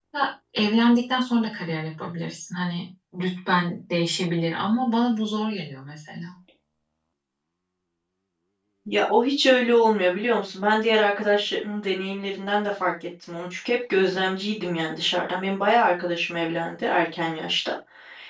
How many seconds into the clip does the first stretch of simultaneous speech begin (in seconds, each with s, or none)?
none